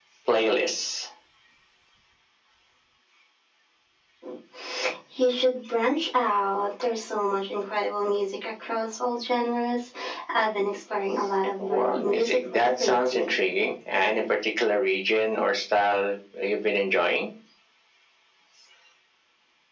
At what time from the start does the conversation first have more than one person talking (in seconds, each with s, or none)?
11.6 s